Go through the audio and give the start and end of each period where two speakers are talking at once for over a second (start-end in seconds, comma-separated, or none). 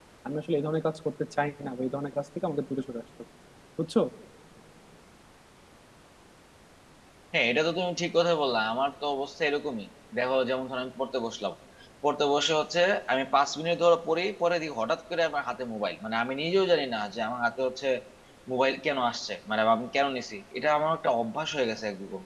none